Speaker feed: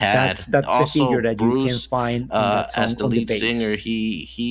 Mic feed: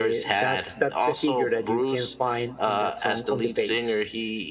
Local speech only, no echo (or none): none